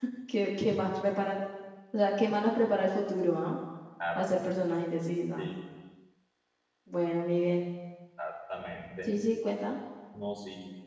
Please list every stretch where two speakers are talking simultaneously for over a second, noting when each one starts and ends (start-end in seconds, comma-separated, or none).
none